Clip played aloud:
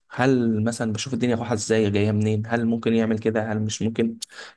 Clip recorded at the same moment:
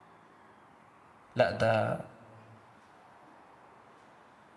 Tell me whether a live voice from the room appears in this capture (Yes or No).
Yes